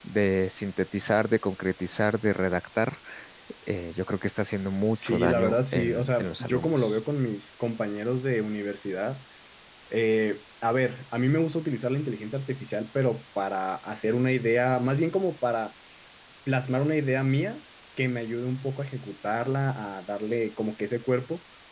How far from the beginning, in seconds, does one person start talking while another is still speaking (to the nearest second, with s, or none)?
5 s